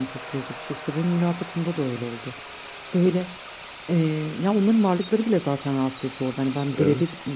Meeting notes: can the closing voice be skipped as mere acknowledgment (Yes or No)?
Yes